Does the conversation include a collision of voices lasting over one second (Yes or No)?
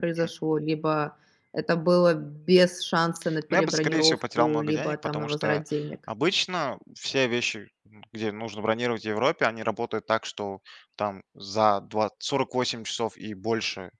Yes